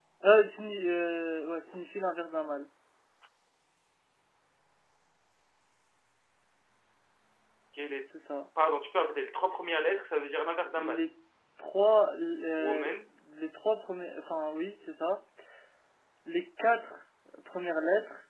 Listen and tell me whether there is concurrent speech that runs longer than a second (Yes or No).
No